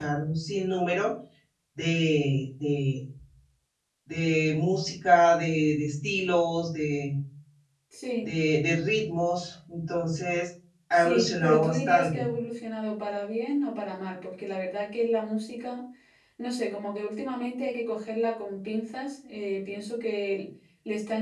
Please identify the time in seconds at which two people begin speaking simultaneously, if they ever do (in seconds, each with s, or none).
10.9 s